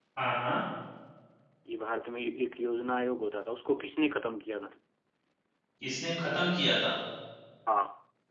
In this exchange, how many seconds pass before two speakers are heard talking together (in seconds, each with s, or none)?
none